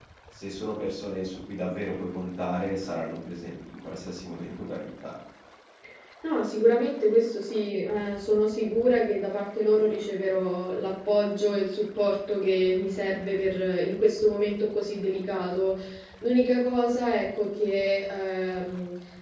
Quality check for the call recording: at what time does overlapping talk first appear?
none

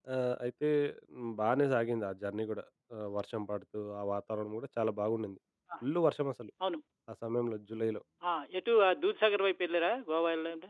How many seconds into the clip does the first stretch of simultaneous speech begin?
none

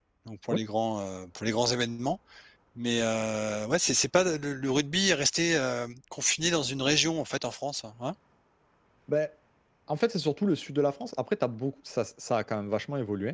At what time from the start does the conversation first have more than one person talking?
none

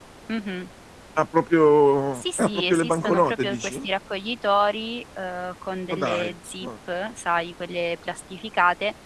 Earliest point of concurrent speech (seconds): 2 s

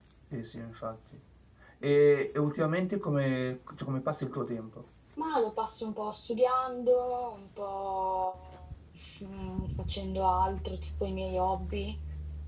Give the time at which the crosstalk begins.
none

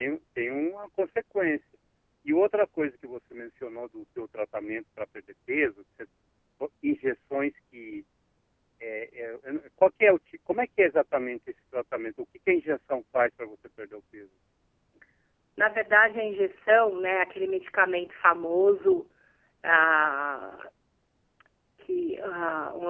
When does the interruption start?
none

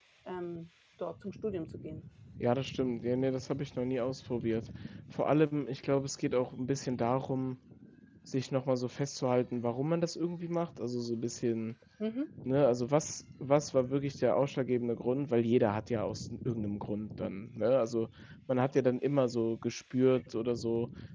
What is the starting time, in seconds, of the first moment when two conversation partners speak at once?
none

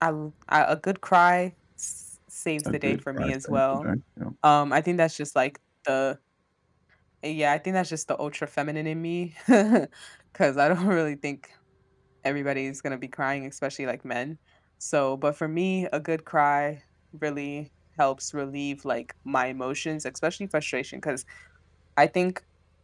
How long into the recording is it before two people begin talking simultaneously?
3 s

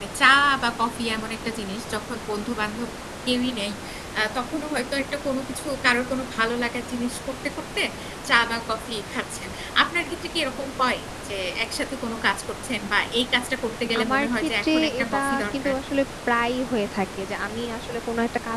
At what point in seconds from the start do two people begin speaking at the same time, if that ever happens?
14 s

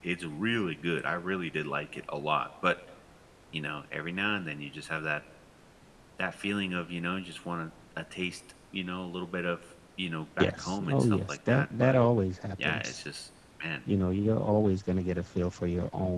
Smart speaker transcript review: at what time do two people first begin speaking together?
10 s

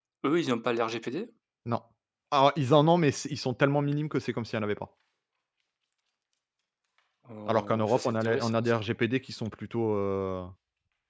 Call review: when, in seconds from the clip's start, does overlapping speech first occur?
7 s

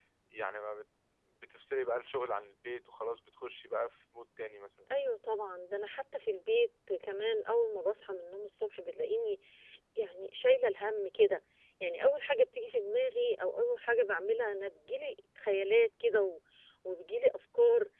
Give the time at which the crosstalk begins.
none

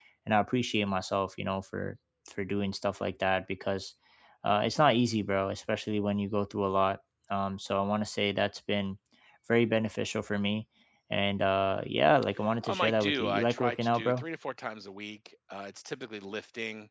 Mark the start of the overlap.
12 s

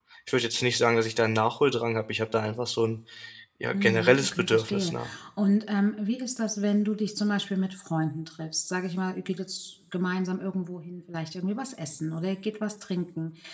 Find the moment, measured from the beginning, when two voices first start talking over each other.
4 s

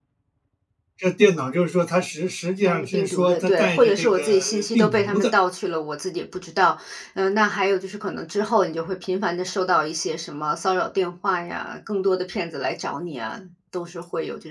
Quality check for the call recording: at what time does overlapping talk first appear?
3 s

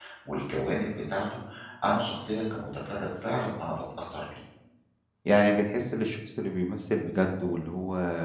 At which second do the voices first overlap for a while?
none

